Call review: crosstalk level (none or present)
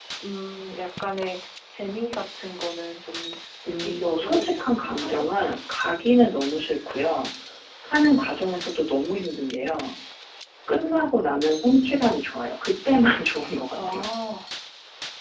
present